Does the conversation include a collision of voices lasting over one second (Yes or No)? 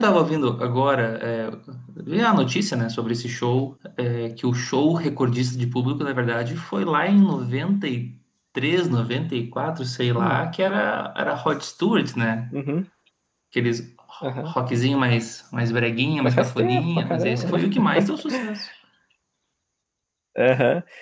Yes